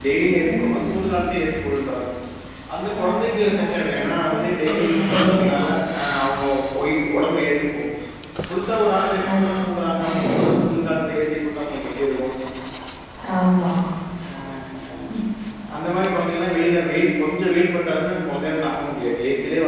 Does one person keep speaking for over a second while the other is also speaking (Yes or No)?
Yes